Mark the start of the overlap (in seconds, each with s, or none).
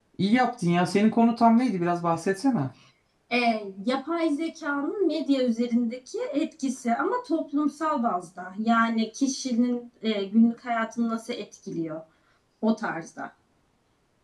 none